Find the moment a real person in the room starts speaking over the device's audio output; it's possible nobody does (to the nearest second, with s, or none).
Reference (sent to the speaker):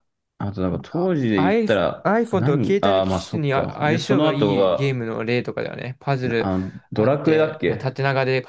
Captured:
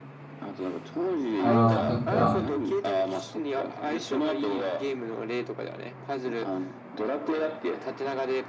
1 s